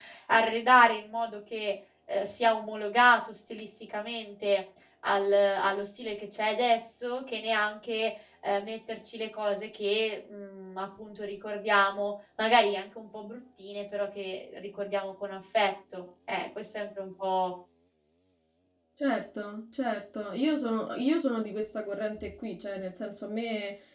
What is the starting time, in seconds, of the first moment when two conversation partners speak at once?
none

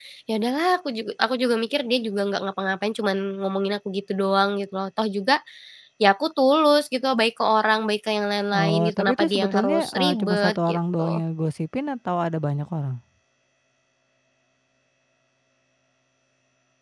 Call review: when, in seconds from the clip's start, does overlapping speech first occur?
9 s

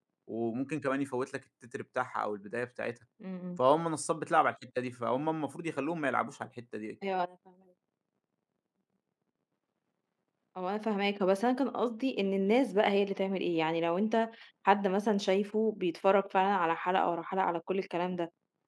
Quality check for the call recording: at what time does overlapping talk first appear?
none

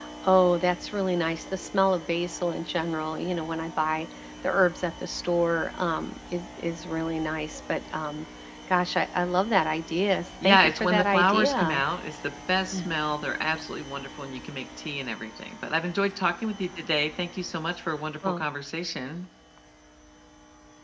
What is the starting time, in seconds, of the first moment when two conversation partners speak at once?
10 s

